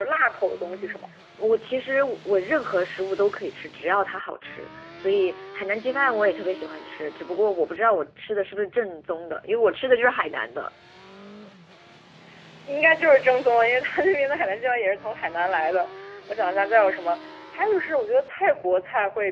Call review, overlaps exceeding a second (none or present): none